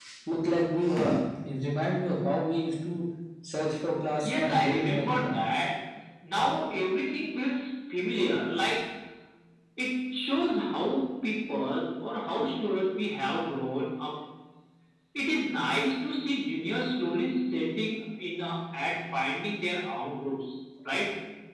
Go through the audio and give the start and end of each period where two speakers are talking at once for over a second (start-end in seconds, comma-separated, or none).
4.2-5.4